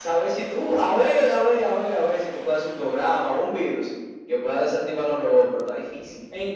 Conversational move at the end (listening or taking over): taking over